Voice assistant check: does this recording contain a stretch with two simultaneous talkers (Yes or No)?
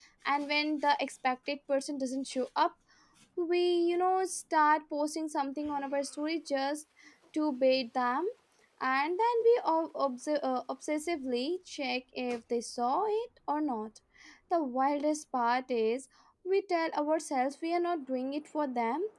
No